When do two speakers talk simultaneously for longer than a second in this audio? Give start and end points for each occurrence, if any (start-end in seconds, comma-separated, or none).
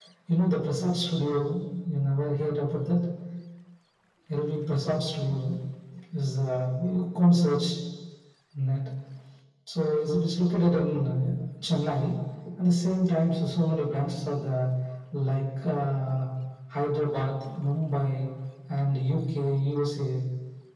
none